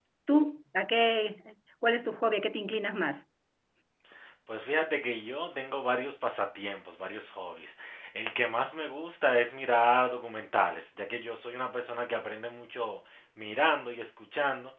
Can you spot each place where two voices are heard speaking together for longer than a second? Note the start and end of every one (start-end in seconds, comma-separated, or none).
none